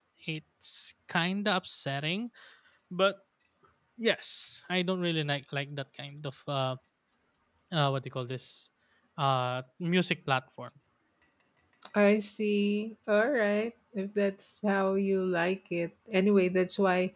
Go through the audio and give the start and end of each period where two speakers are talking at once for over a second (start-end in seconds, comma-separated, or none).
none